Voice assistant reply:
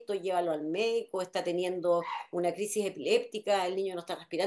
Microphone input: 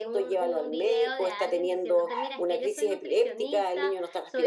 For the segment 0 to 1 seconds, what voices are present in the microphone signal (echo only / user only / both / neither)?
both